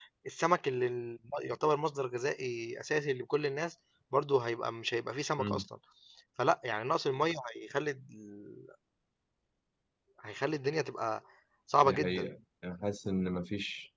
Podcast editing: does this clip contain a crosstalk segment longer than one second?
No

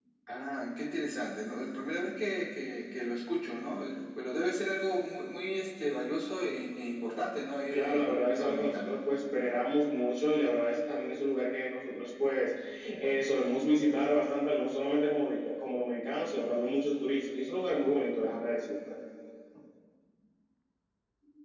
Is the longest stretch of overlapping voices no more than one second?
No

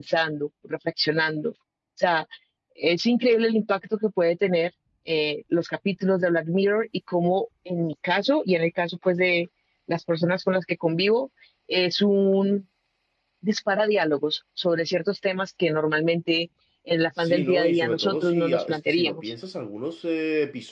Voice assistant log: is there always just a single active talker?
No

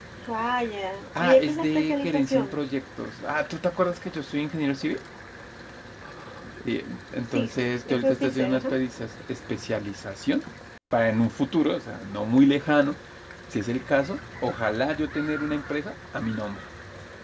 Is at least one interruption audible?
Yes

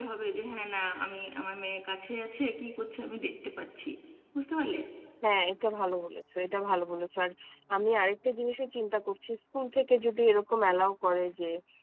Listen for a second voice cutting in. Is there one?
No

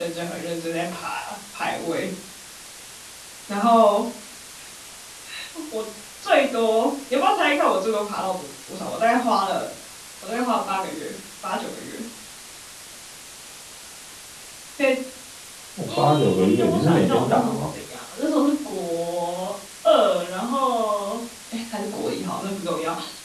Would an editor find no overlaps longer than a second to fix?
No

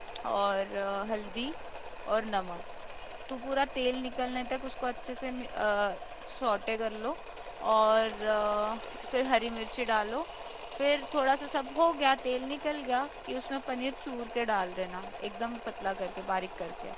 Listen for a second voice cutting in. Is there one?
No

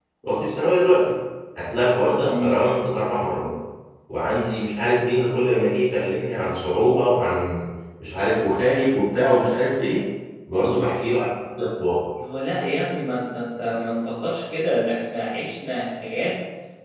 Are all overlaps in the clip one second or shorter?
Yes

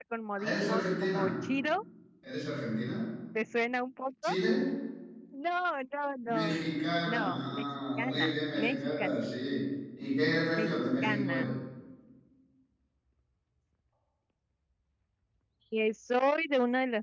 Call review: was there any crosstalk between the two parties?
Yes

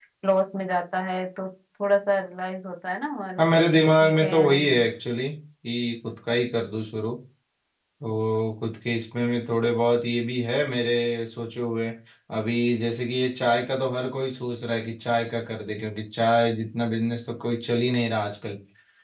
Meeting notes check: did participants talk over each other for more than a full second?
Yes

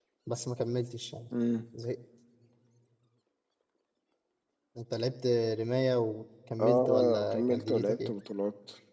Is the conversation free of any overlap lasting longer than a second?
No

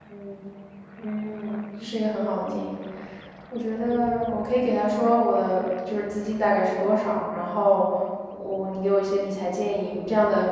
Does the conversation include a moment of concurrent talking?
No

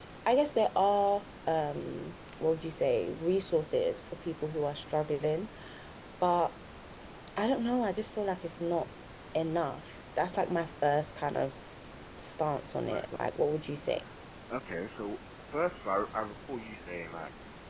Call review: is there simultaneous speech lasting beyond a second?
No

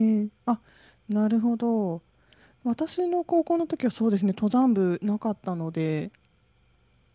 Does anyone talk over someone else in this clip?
No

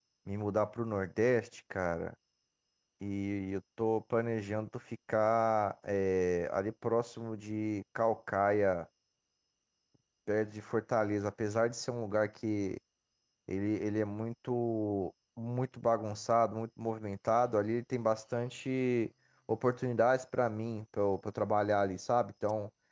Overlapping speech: No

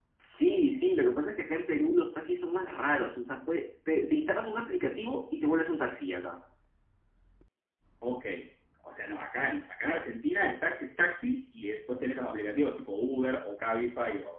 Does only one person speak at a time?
Yes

